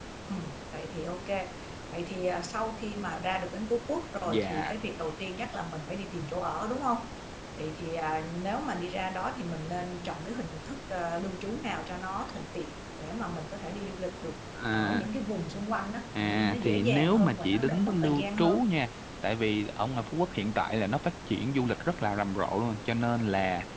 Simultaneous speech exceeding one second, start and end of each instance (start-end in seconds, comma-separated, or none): 16.2-18.6